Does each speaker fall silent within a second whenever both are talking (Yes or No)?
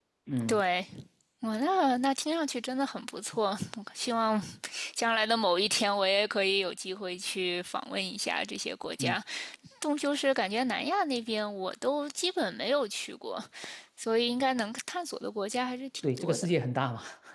Yes